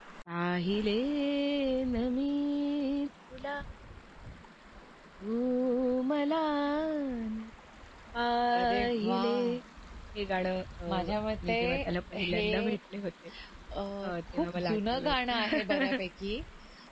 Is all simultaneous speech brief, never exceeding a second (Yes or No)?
No